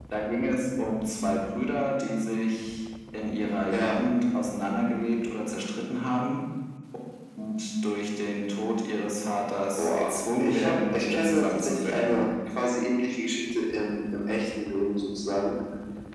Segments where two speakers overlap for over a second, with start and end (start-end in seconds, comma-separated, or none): 9.8-12.3